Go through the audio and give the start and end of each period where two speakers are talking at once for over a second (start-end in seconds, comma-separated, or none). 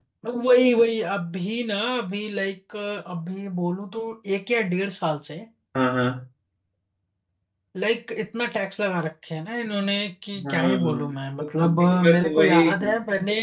10.4-12.7